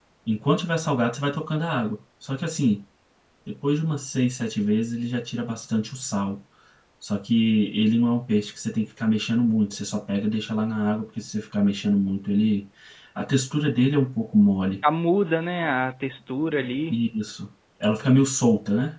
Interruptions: none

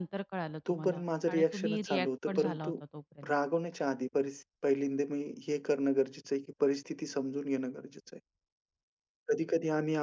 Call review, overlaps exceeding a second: present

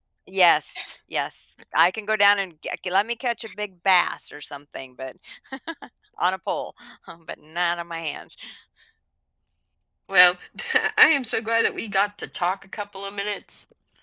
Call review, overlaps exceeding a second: none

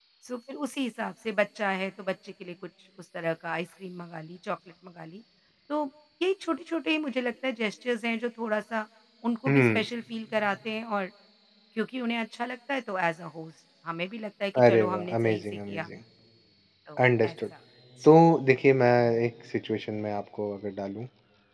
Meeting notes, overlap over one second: present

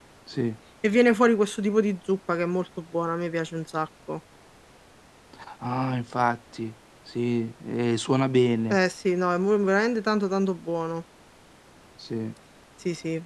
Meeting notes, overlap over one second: none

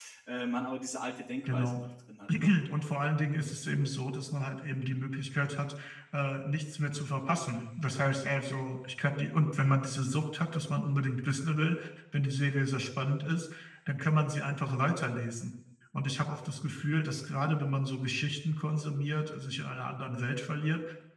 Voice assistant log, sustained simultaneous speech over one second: none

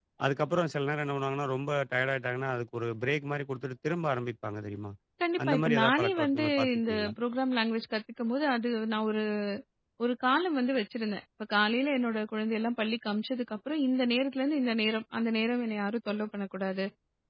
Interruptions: present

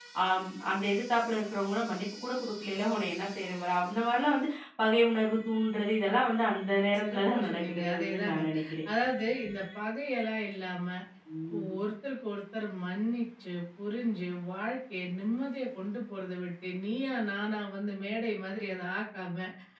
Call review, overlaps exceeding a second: present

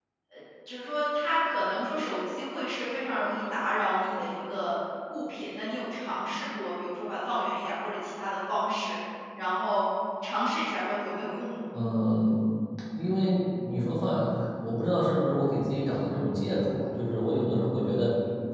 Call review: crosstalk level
none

